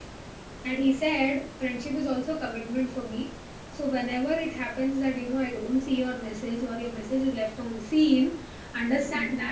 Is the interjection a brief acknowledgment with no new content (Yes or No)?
Yes